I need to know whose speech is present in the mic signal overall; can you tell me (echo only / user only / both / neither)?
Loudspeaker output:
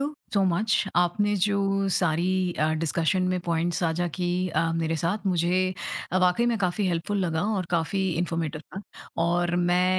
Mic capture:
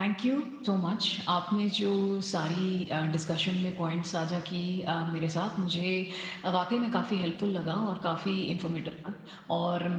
echo only